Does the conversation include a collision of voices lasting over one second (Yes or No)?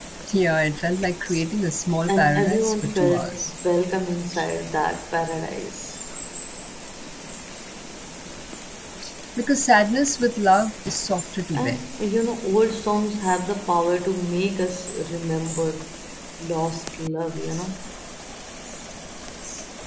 Yes